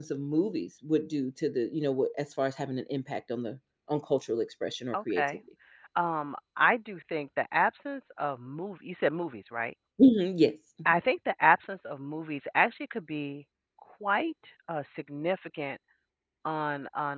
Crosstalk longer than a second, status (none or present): none